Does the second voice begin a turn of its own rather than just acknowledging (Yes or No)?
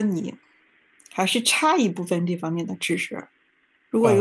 No